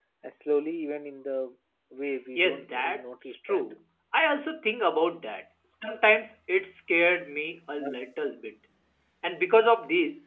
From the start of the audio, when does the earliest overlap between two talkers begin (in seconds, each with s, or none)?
2.4 s